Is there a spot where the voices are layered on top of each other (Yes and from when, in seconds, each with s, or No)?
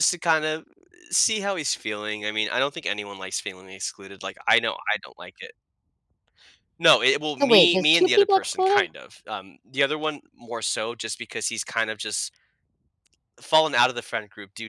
Yes, from 7.4 s